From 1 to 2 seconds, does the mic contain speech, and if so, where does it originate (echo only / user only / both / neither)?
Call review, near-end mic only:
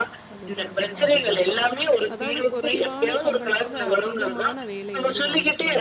both